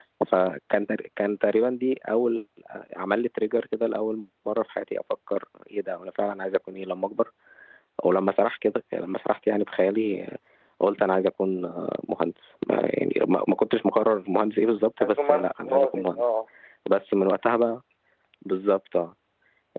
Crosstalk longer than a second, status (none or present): present